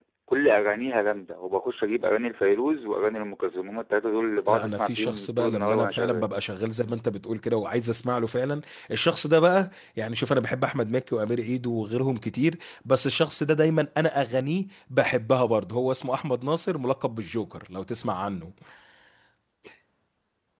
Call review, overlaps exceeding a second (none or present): present